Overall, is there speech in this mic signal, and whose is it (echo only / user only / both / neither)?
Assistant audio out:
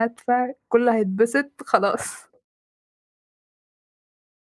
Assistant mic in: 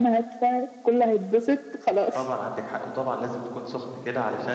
both